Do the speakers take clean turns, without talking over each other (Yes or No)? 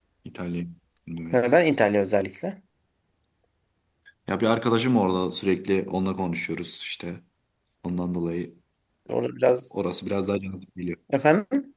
Yes